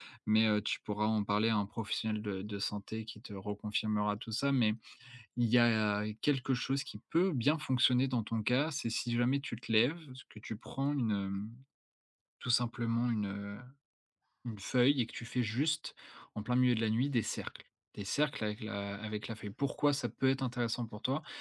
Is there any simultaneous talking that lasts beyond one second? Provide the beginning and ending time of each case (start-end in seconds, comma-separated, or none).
none